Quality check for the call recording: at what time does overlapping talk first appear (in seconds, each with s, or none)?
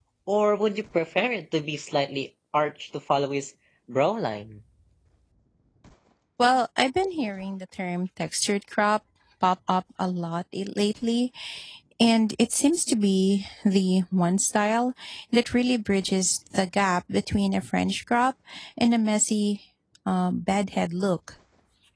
none